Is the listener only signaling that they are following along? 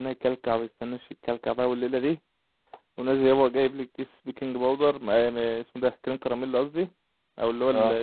Yes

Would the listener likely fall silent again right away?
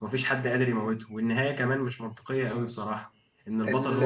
Yes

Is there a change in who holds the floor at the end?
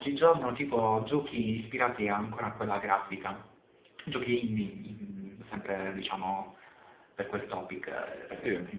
No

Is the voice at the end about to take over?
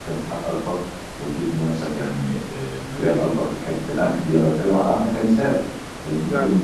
No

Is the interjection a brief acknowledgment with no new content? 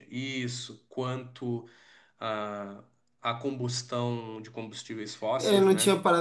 No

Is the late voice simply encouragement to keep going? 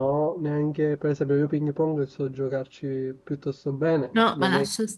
No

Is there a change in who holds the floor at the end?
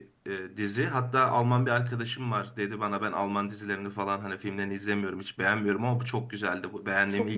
Yes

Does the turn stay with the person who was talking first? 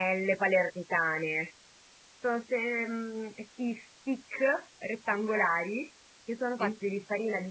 Yes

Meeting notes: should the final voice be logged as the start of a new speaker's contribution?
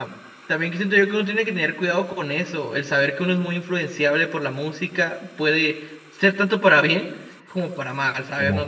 Yes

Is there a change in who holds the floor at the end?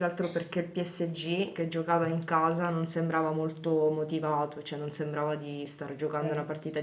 No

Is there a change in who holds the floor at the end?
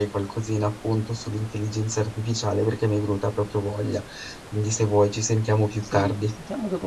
Yes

